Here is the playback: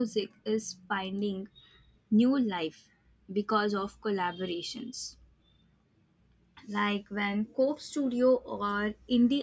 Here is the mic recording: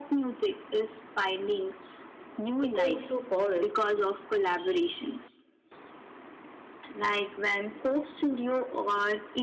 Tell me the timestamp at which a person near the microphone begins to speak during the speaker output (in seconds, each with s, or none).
2.6 s